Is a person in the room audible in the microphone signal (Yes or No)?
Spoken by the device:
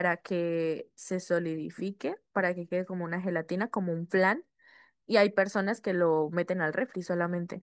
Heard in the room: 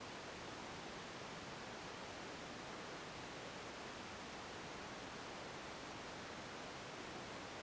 No